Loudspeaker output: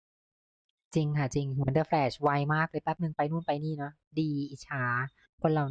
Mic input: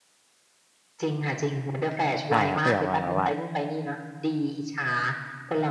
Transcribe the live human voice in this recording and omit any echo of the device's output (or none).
ใช่ครับก็อย่างว่าแบบว่า